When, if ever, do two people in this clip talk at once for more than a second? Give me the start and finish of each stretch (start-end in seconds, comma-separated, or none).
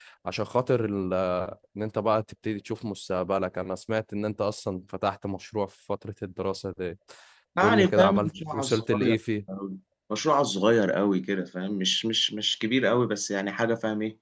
7.6-9.2